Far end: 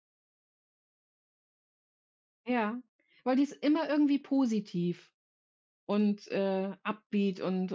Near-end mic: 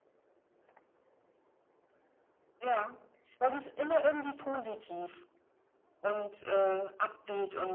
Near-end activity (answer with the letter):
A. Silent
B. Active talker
A